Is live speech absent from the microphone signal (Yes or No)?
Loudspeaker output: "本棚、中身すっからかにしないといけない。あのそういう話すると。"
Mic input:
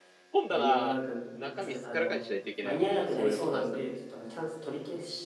No